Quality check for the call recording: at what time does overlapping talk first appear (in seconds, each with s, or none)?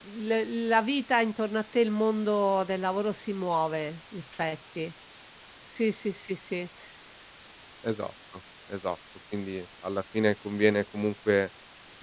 none